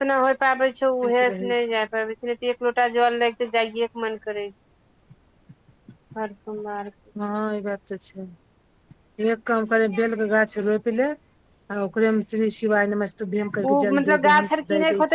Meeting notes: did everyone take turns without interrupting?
No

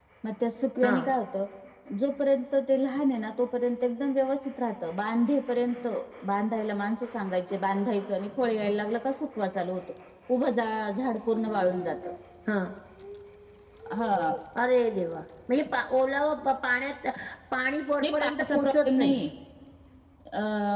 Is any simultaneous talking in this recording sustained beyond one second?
Yes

